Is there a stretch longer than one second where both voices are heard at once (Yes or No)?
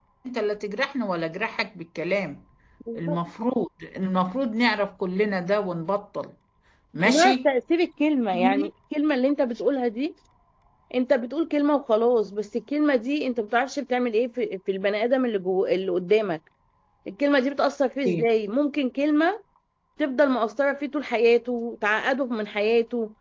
No